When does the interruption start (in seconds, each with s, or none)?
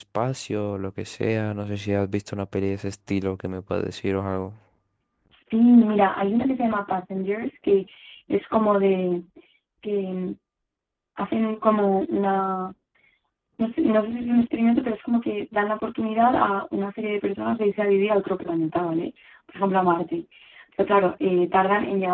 none